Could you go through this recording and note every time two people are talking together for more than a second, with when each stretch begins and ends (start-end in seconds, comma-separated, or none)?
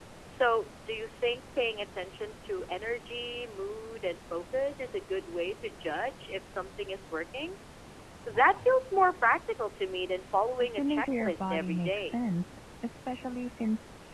10.6-12.2